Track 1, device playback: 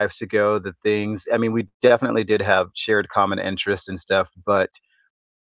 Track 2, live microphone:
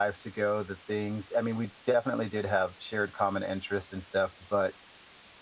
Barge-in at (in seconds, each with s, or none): none